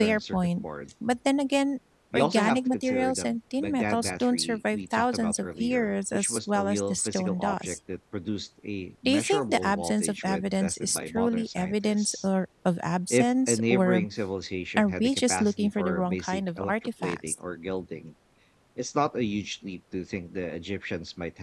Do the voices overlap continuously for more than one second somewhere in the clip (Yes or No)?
Yes